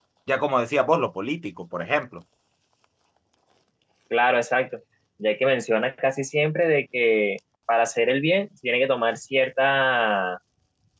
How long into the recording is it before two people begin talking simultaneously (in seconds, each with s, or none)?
none